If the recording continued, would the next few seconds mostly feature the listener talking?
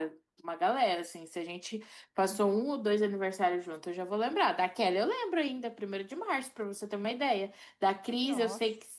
No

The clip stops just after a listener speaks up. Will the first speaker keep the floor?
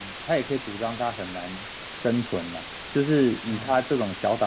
Yes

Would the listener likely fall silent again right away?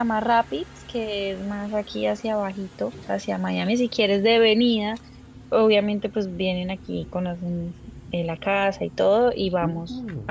No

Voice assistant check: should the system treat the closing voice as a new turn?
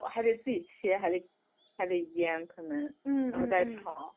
Yes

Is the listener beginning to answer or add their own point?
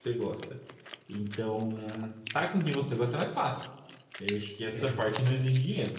No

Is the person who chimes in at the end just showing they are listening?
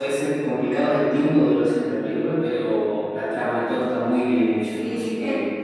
No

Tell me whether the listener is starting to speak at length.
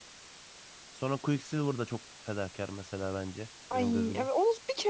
Yes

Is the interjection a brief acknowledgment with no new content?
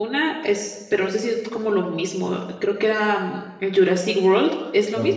No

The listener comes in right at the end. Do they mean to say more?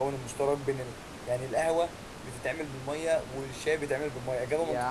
Yes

